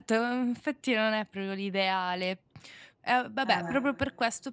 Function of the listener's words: listening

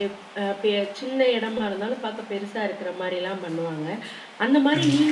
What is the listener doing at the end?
listening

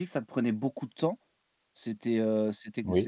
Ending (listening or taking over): listening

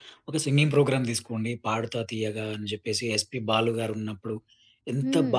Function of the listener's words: listening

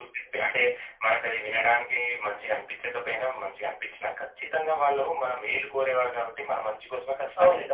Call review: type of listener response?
taking over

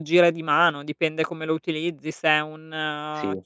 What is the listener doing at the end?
listening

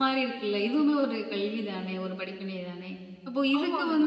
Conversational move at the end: listening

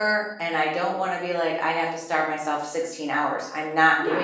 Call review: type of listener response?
taking over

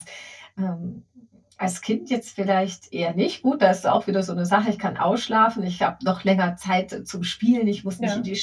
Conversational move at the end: listening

